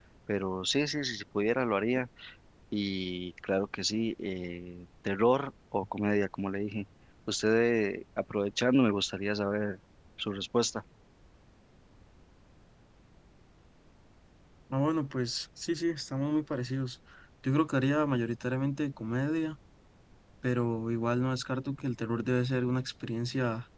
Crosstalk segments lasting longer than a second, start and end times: none

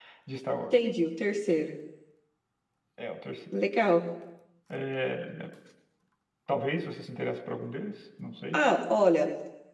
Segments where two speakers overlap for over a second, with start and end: none

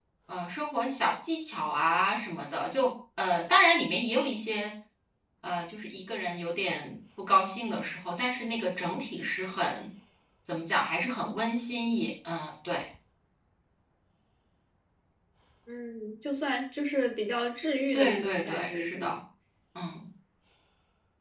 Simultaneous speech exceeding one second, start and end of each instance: 17.9-19.2

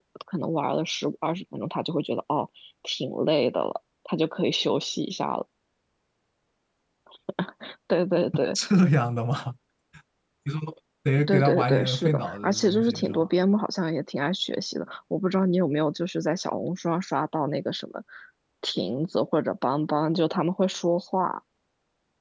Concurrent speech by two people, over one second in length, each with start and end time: 11.3-13.3

